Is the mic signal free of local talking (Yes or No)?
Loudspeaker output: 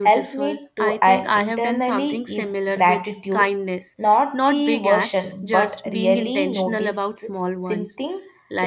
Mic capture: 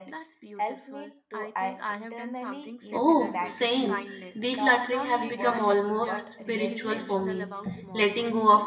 No